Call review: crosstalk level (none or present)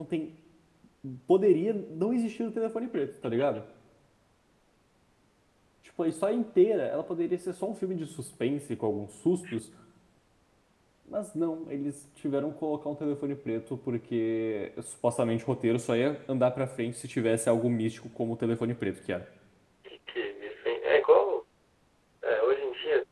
none